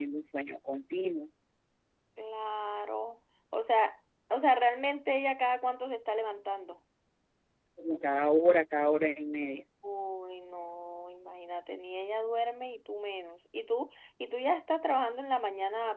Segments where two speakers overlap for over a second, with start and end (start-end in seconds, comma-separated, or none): none